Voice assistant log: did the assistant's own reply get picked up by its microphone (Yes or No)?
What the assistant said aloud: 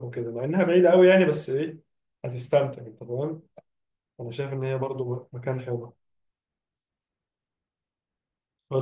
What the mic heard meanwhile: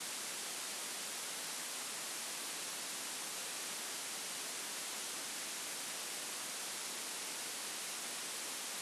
No